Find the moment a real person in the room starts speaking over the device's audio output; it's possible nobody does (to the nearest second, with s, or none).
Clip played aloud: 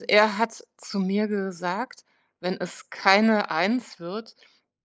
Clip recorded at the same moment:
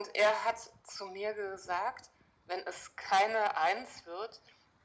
none